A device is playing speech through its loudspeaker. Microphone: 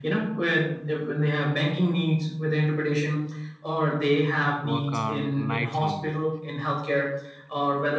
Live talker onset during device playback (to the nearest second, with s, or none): 5 s